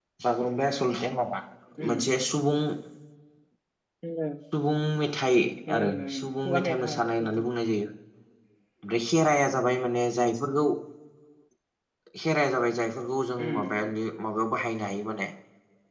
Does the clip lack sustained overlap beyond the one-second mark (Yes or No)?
No